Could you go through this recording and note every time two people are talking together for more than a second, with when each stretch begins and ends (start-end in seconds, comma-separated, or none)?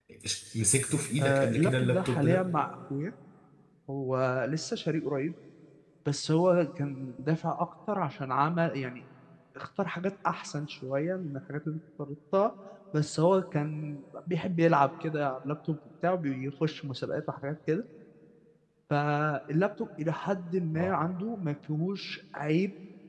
1.2-2.4